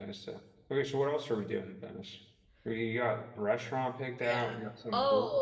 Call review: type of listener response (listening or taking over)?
taking over